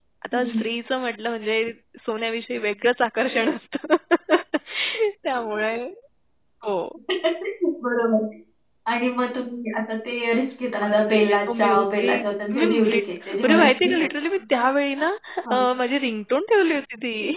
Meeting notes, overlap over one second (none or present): present